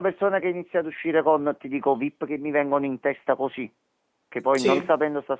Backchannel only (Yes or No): Yes